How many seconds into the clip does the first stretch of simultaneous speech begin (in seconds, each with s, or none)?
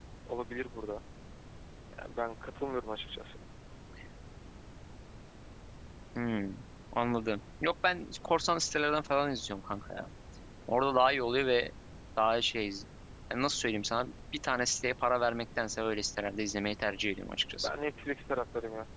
none